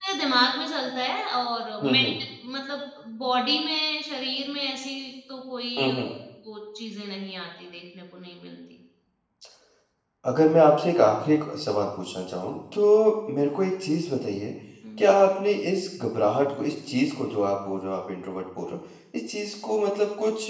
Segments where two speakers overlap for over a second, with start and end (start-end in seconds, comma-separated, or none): none